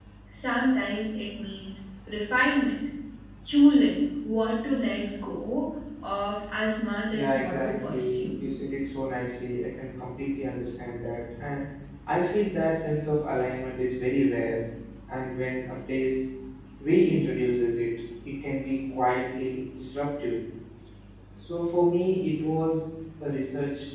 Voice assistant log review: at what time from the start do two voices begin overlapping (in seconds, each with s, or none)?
7.1 s